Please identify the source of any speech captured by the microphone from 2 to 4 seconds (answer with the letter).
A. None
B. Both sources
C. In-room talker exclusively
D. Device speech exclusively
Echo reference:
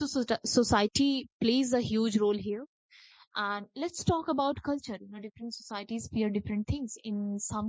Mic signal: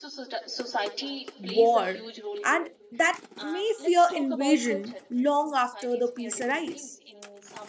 B